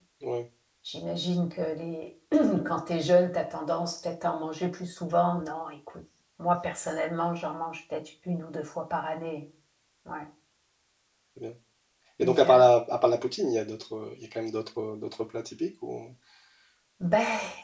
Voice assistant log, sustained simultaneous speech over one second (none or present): none